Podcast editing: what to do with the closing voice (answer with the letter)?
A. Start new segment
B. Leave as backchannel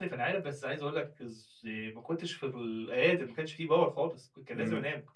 B